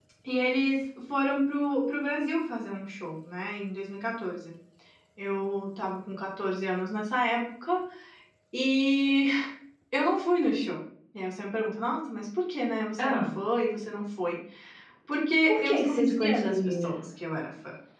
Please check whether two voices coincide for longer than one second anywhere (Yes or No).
Yes